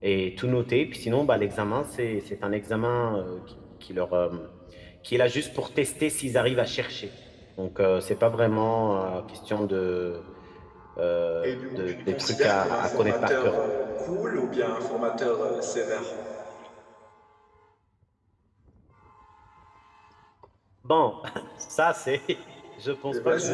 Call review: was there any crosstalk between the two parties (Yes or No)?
Yes